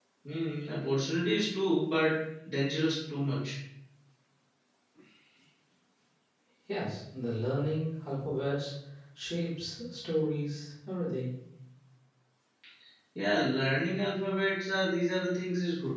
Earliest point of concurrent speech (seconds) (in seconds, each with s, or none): none